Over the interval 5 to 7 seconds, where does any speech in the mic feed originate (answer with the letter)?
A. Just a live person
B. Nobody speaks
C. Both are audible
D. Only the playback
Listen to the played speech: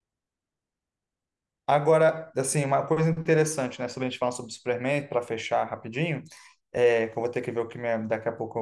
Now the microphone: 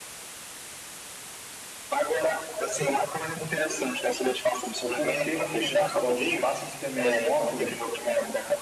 C